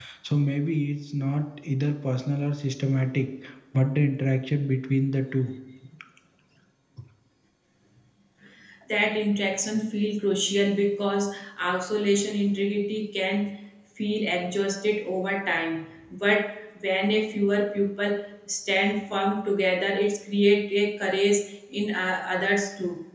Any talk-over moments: No

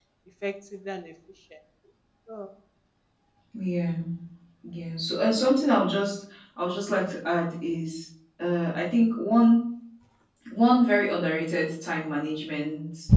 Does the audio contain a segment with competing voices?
No

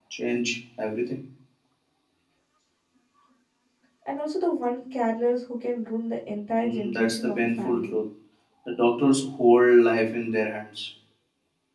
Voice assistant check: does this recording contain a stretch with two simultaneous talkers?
Yes, from 6.6 s

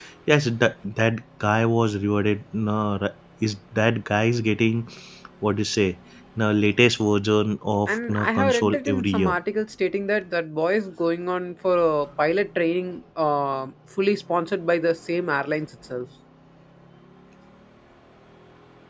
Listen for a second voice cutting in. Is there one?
Yes, from 7.9 s

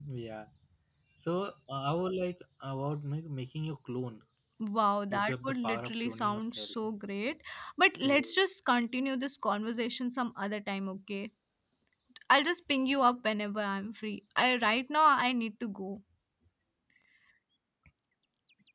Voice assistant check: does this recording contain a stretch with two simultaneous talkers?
Yes, from 5.1 s

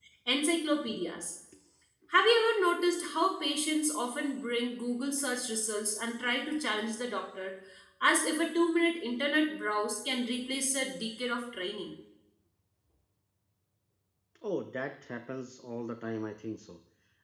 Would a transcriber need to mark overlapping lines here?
No

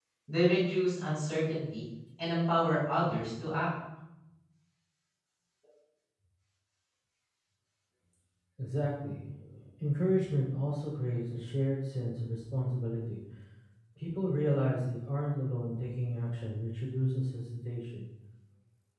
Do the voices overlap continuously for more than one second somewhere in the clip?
No

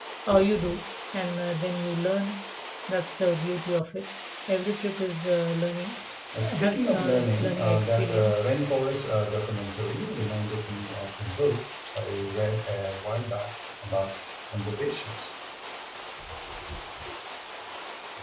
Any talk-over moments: Yes, from 6.5 s

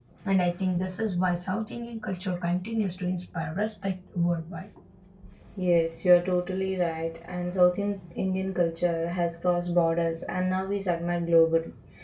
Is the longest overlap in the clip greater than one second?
No

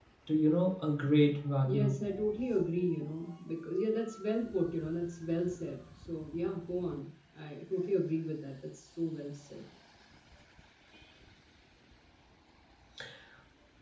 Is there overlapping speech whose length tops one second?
No

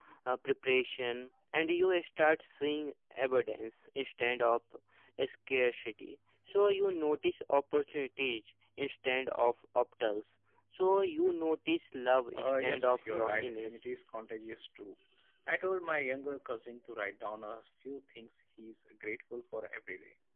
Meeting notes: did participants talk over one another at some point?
Yes, from 12.3 s

